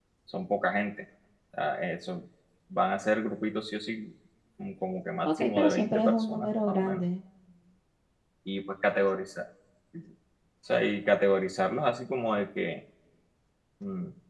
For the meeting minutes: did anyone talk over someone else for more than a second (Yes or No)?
Yes